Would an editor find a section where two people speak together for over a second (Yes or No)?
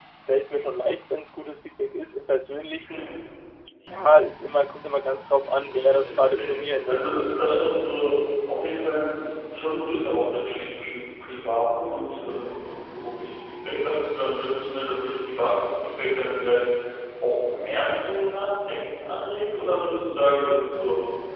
Yes